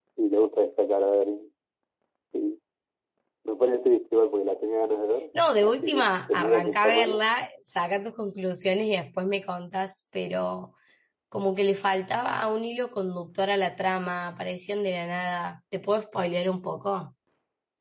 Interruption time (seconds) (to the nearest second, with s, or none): 6 s